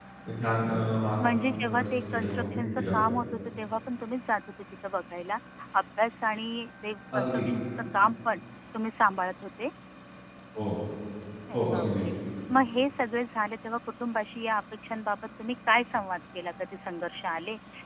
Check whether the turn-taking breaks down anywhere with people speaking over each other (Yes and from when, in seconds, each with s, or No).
Yes, from 1.3 s